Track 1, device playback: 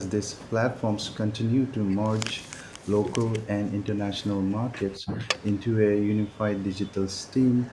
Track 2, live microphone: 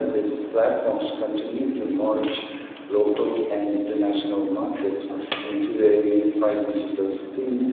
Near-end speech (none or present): none